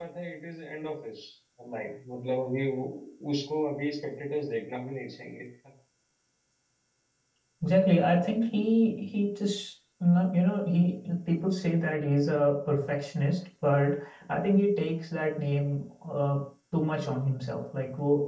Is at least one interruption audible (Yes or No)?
No